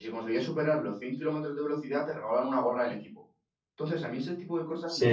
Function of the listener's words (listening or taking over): taking over